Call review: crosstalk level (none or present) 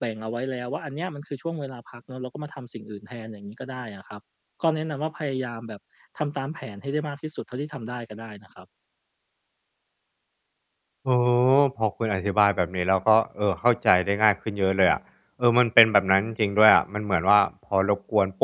none